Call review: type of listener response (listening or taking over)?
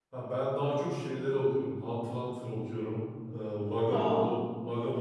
listening